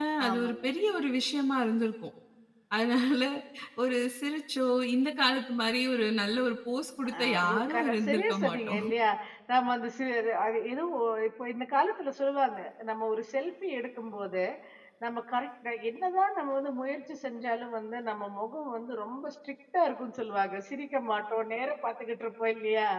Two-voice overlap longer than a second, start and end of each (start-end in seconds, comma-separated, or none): 7.2-8.8